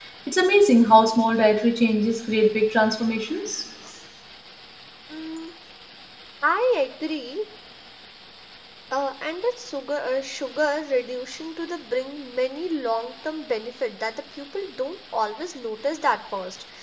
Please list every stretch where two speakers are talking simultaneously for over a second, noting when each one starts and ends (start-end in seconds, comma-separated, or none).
none